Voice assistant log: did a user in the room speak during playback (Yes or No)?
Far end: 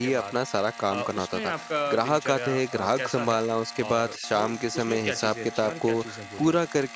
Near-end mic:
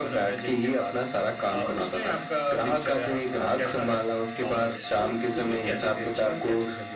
No